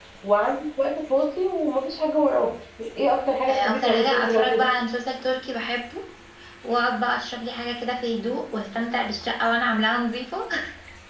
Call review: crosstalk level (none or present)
present